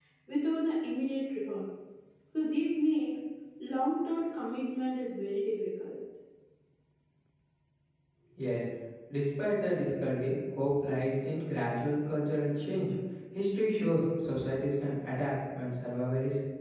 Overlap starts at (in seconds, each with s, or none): none